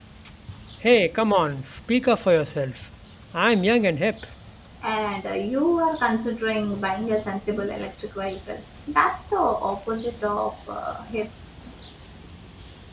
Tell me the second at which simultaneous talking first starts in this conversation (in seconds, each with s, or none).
none